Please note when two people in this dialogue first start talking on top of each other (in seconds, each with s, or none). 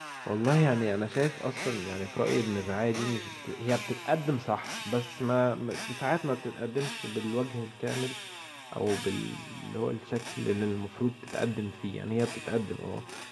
none